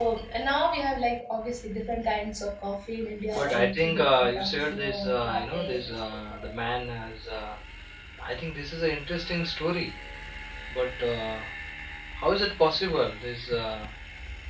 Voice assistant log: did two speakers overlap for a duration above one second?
Yes, from 3.3 s

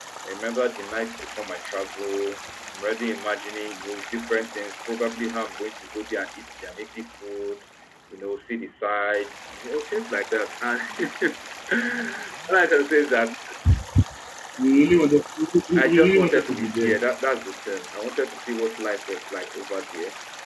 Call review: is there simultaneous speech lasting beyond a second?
Yes, from 15.8 s

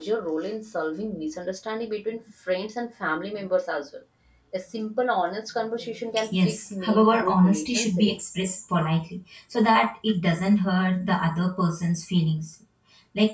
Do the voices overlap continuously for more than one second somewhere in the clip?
Yes, from 6.2 s

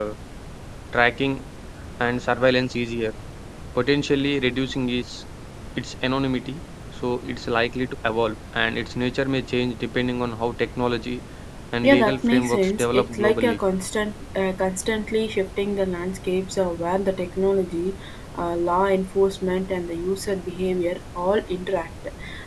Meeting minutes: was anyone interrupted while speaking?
Yes, from 11.8 s

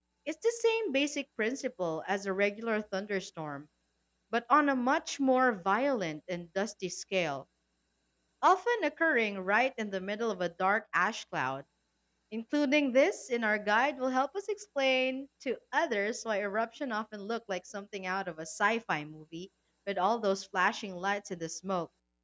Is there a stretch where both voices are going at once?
No

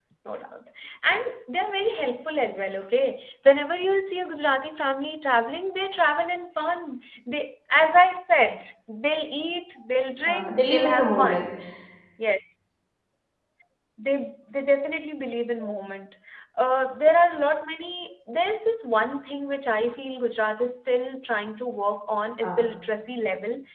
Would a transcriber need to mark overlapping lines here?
Yes, from 10.3 s

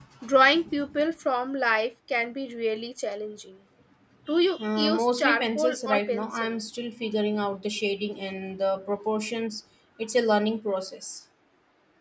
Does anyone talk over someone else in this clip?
Yes, from 4.6 s

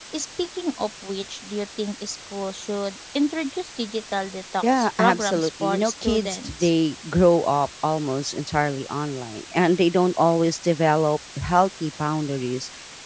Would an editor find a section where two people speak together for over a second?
Yes, from 4.6 s

